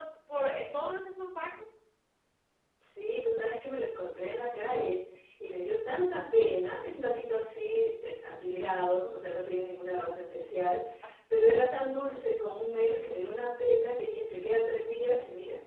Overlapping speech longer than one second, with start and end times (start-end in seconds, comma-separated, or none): none